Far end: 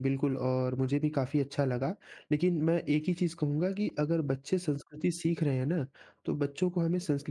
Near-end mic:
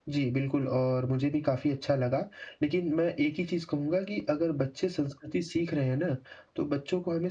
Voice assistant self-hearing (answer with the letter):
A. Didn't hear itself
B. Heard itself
B